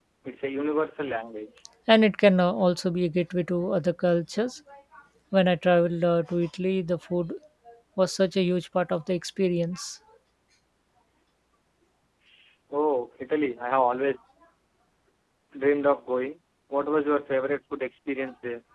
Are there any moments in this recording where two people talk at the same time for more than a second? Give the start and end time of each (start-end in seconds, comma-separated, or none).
none